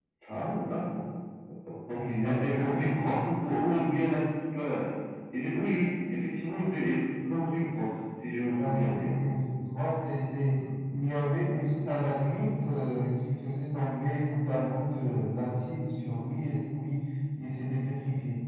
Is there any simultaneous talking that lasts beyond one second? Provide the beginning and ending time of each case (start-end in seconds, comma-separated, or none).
2.0-3.2